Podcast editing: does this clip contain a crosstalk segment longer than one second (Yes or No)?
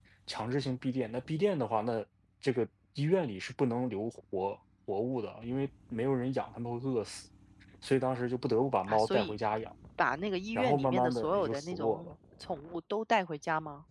Yes